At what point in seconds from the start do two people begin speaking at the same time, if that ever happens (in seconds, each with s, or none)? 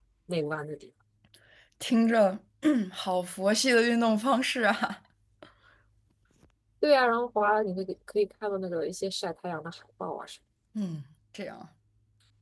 none